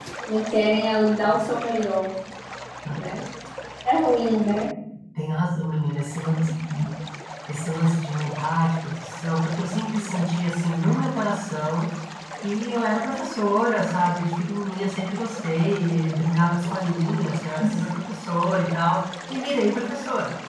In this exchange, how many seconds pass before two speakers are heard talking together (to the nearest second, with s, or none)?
none